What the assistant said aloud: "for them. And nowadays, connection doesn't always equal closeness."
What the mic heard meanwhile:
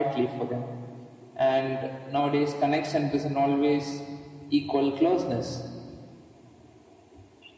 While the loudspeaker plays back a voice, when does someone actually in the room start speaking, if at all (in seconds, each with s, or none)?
none